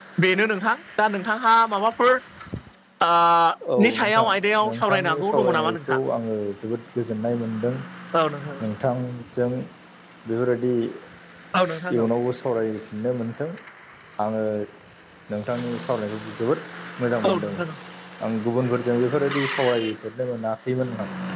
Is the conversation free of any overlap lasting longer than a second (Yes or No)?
No